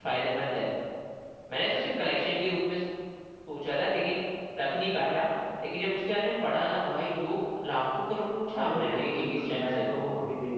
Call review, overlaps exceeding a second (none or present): present